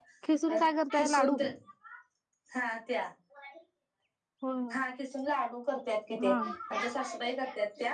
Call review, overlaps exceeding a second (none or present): none